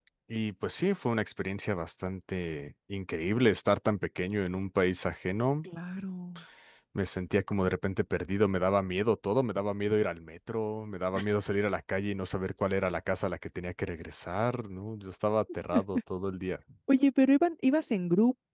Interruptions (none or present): none